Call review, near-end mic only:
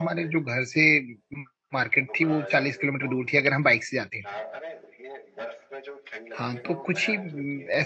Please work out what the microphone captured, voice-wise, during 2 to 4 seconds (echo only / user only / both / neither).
both